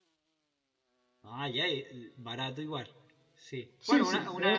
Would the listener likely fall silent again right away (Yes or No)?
No